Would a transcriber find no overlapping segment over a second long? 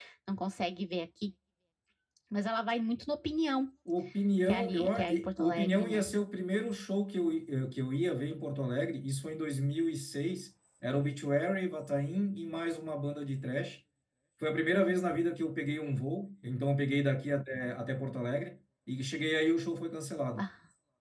No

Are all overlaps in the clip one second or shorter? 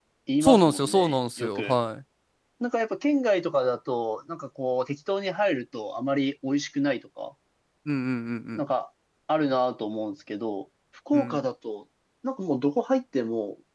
No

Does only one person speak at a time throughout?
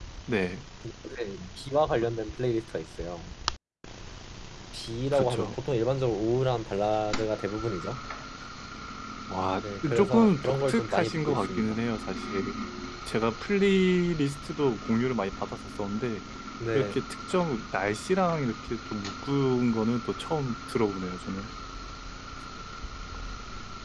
No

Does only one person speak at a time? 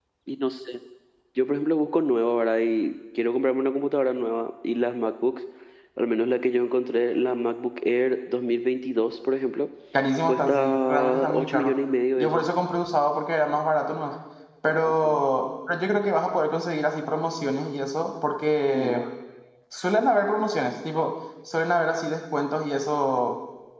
No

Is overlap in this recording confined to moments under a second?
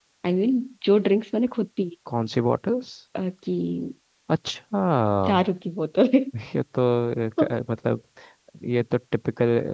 Yes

